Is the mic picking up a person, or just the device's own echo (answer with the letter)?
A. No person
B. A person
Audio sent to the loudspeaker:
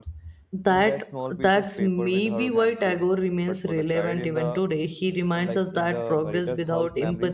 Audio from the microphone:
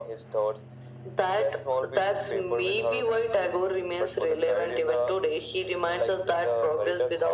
A